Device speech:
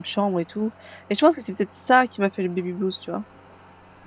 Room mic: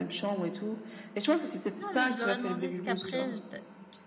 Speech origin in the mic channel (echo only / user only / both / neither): both